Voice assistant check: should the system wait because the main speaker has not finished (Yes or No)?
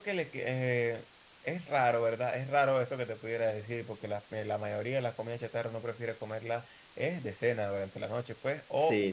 Yes